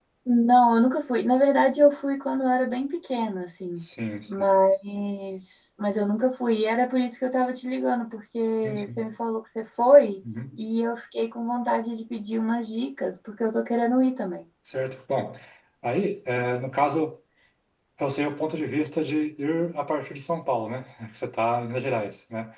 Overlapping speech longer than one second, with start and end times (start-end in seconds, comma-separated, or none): none